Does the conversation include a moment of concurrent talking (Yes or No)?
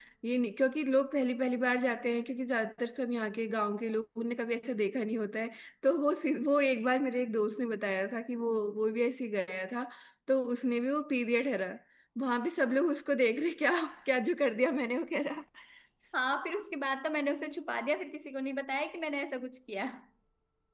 No